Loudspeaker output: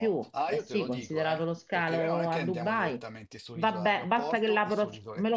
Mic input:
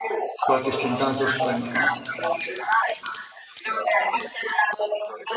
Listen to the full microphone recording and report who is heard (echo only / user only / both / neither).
both